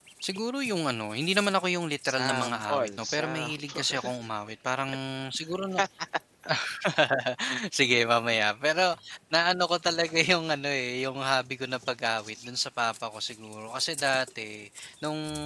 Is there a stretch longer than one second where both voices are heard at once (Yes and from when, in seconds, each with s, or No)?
Yes, from 2.0 s